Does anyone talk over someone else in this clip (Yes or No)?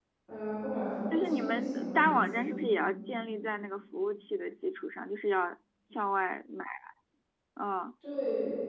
Yes